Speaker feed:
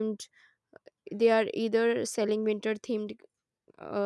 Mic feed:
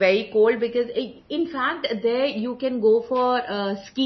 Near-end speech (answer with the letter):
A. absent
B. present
B